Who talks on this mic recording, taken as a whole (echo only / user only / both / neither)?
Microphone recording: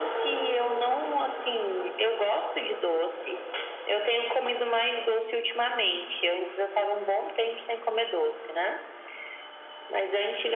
echo only